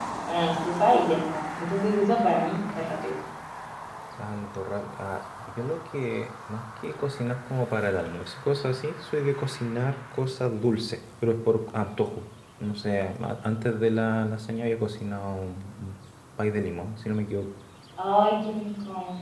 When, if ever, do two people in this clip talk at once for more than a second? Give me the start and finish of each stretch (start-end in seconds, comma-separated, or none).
none